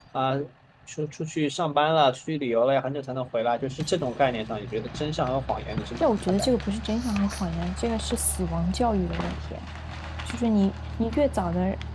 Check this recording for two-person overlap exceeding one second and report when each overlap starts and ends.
none

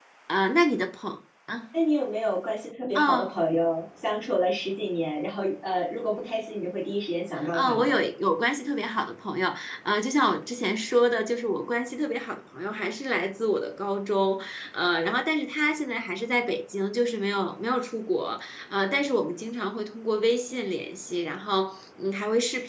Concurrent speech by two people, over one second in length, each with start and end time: none

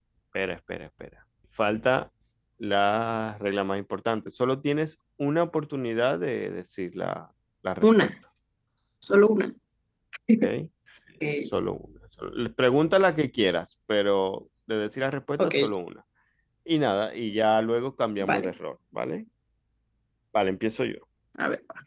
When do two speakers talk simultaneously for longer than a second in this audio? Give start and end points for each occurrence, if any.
none

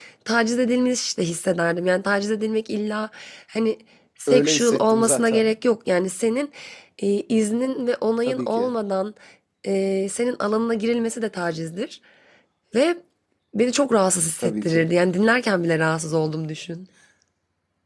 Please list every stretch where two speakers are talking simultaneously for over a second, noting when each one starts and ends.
4.3-5.5

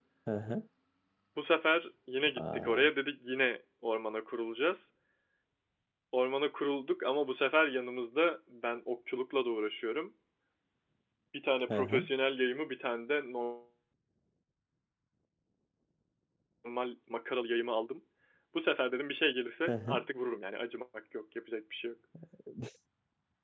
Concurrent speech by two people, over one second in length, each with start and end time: none

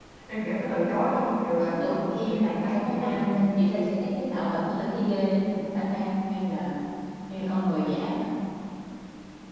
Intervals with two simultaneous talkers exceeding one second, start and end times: 1.6-3.4

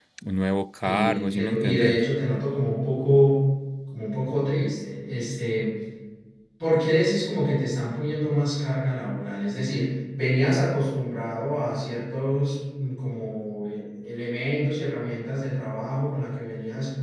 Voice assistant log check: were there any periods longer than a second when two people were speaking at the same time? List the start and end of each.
0.8-2.0

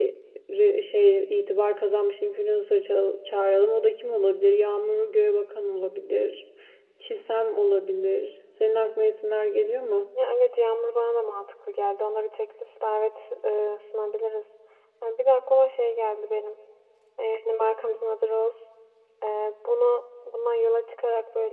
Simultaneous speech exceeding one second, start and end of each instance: none

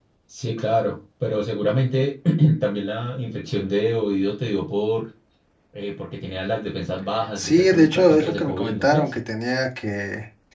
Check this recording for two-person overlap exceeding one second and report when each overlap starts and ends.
7.4-9.1

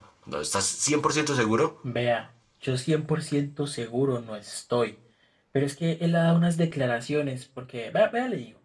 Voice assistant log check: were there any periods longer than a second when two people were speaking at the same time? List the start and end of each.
none

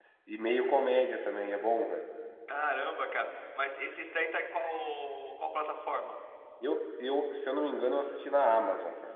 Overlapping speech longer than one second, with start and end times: none

